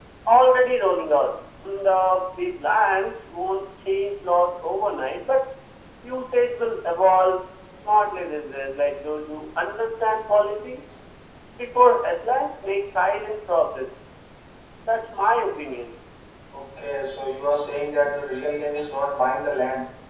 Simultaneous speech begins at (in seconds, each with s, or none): none